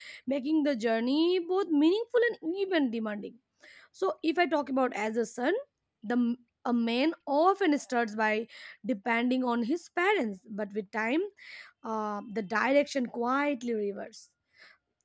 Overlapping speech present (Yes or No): No